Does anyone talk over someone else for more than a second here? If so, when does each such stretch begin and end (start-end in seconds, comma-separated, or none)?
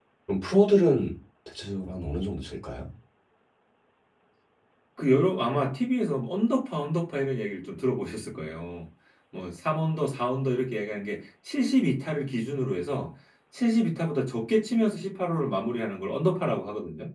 none